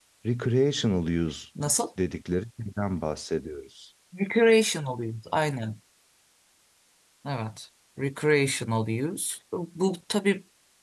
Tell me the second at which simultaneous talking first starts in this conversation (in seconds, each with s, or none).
none